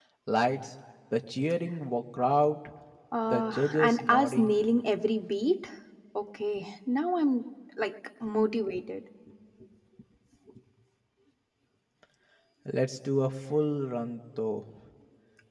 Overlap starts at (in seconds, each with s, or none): 3.3 s